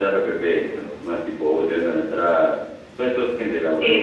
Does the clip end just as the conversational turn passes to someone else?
Yes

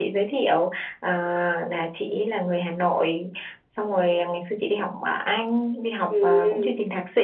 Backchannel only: Yes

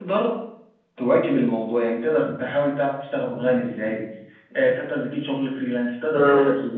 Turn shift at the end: No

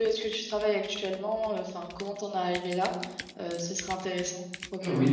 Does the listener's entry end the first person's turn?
Yes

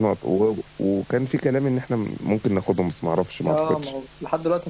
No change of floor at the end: No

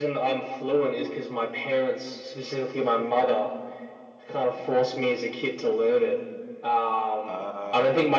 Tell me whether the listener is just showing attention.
Yes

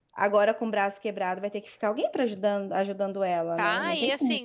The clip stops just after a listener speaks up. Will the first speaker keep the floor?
No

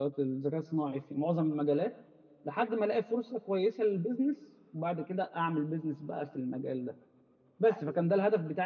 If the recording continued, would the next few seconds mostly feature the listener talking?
No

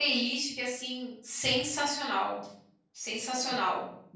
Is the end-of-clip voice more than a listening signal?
Yes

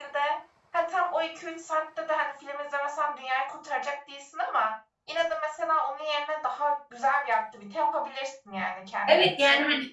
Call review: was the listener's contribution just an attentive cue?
No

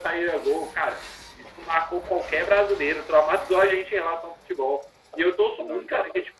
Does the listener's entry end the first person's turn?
No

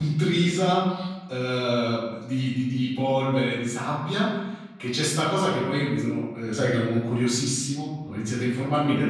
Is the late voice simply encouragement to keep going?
Yes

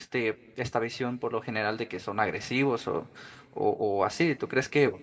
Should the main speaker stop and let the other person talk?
No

